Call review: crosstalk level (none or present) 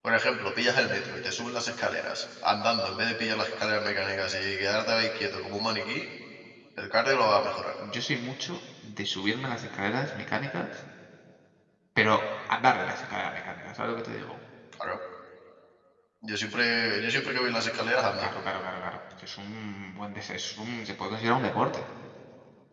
none